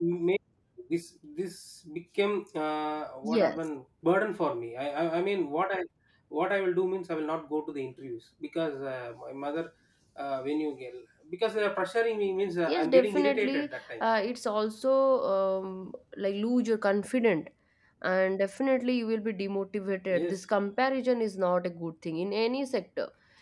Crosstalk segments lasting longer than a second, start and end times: 12.7-14.0

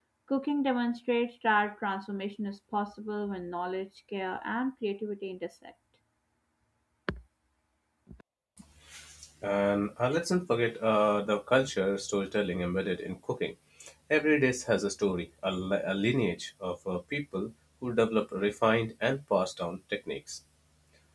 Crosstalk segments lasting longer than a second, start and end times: none

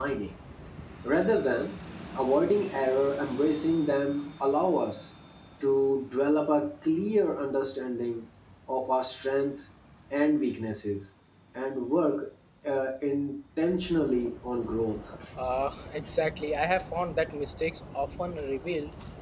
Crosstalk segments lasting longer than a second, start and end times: none

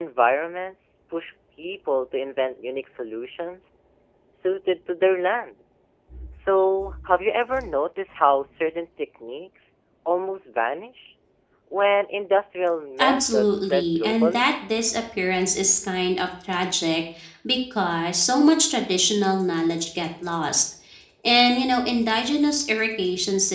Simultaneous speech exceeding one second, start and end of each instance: 13.0-14.5

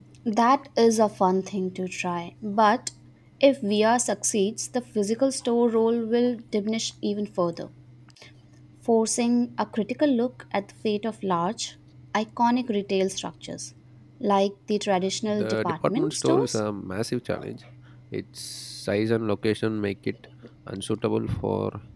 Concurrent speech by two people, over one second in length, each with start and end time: 15.2-16.6

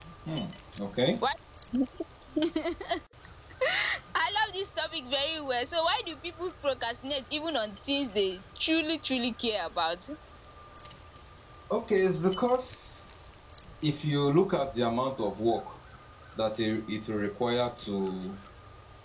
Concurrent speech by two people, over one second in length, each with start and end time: none

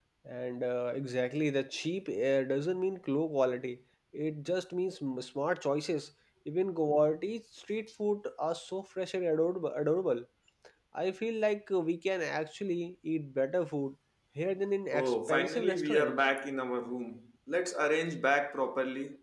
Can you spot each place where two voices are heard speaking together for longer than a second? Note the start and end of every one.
14.9-16.2

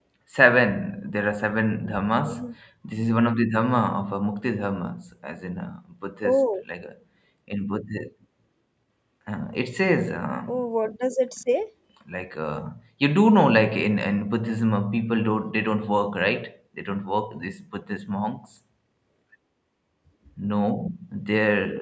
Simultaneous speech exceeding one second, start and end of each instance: none

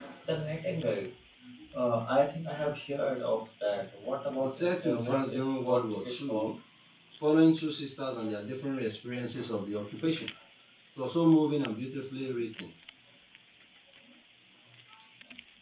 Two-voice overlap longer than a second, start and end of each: 4.4-6.5

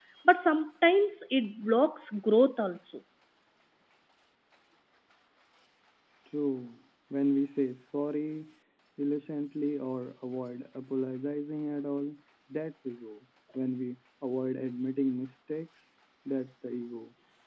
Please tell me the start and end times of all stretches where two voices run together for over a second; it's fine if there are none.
none

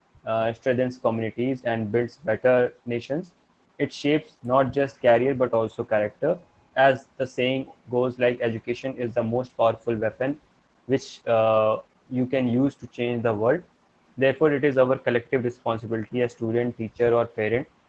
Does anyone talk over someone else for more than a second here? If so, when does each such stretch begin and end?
none

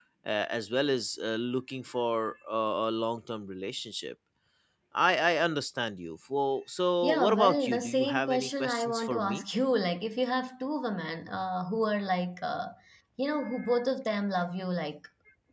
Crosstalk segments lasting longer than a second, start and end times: 7.0-9.4

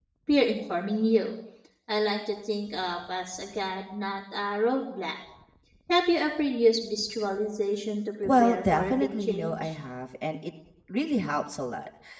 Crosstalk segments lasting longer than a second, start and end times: 8.2-9.8

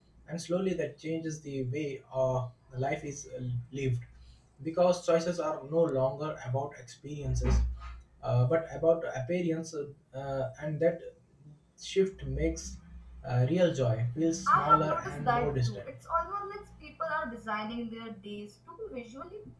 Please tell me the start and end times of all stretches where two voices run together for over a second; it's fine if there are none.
14.5-15.9

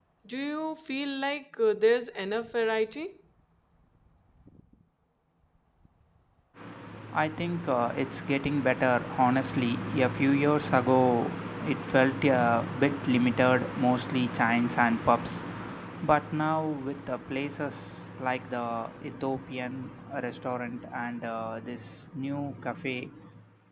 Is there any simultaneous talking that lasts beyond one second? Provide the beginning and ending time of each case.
none

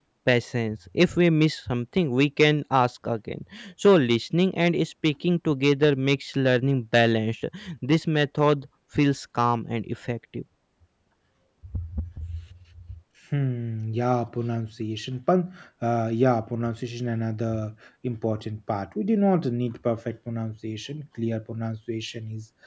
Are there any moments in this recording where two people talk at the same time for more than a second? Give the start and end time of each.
none

